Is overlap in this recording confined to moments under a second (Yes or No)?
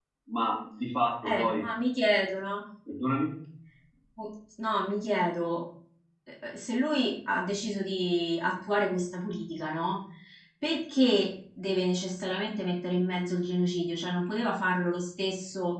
Yes